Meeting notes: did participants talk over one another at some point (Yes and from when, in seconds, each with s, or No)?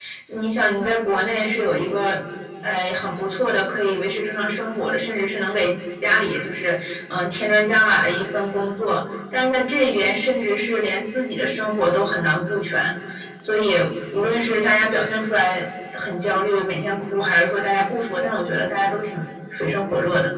No